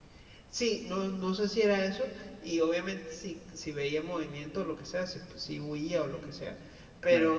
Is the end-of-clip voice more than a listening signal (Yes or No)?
No